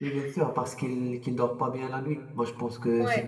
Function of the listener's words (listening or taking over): listening